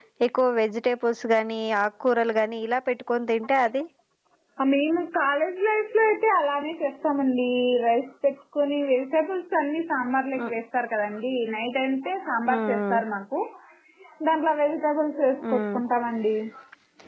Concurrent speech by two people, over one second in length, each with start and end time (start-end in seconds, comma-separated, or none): none